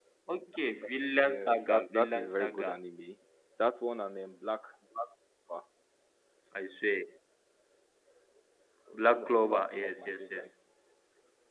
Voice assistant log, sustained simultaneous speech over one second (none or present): present